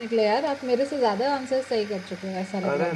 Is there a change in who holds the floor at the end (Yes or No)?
Yes